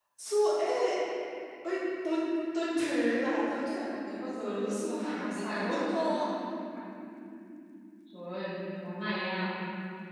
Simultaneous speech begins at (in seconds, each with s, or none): 4.4 s